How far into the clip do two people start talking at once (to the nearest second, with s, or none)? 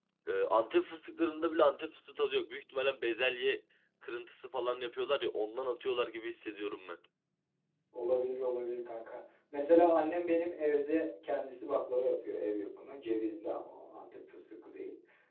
none